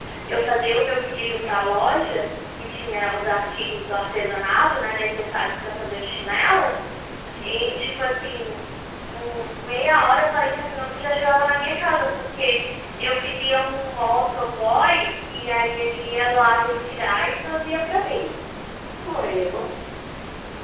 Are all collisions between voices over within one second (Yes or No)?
Yes